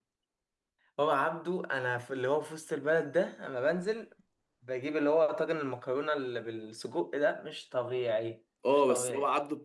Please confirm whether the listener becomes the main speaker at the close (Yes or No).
Yes